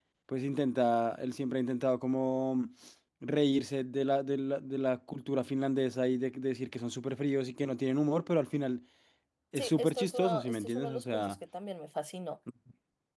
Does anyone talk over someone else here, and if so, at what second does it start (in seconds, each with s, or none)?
9.6 s